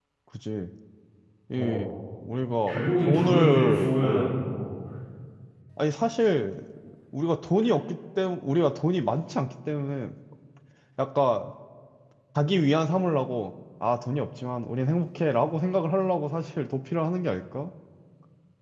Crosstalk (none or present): present